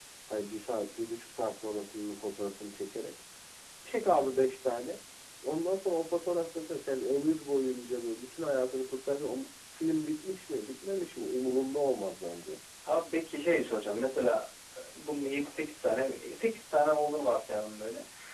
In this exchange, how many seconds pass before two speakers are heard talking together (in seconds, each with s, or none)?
none